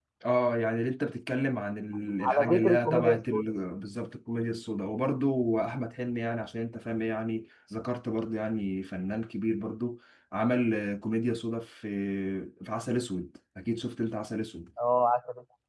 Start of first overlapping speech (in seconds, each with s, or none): 2.2 s